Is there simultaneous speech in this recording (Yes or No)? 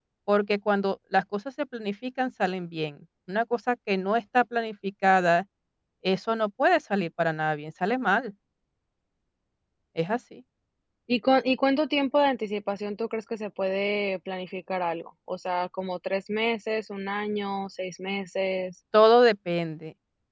No